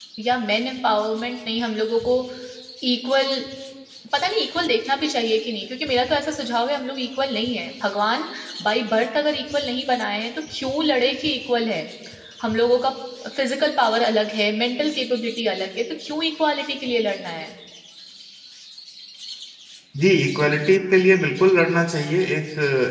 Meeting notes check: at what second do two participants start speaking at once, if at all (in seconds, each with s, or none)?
none